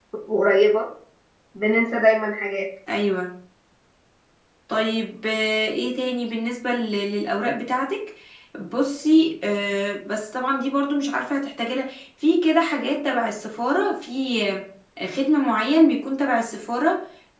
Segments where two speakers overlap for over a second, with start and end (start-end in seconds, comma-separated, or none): none